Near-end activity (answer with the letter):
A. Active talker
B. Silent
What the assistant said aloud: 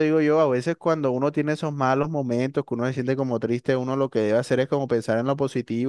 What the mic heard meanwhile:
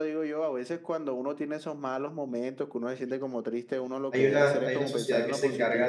A